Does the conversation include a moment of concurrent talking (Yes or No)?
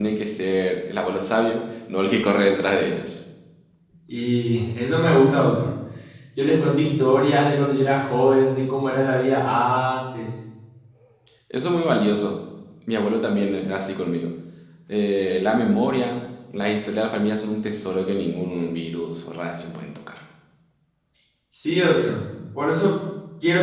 No